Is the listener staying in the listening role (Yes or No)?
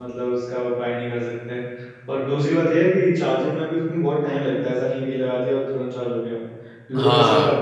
Yes